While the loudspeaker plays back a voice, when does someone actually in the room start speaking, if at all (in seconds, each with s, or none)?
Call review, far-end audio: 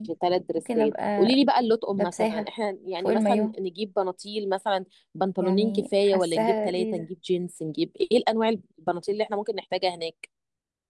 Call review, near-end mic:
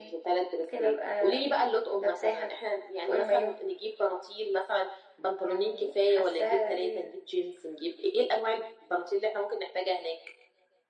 none